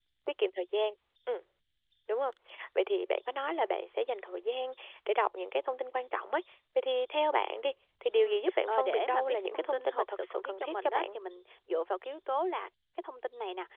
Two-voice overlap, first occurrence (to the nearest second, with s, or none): 8 s